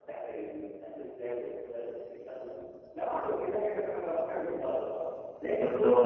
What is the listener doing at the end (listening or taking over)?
taking over